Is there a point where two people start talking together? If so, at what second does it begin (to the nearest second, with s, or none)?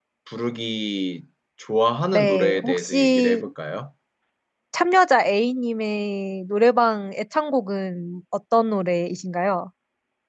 2 s